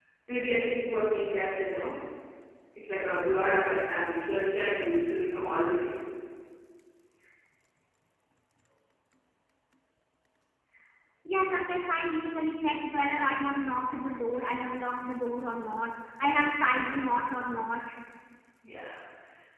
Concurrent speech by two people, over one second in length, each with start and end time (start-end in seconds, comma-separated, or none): none